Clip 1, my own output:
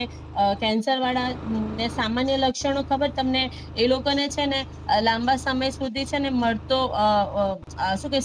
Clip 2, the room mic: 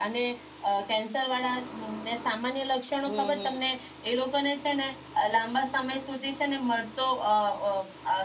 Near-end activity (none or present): present